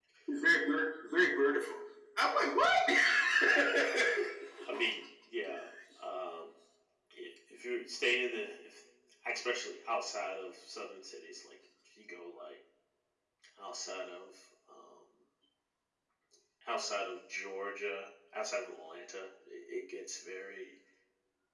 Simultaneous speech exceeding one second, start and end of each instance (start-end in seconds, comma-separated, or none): none